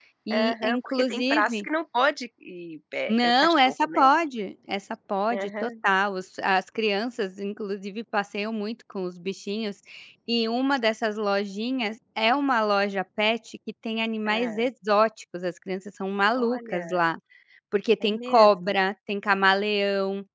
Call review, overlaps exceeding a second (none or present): present